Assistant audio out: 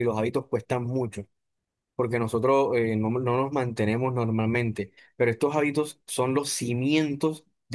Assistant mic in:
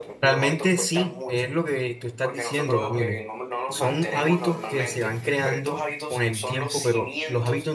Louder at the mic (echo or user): user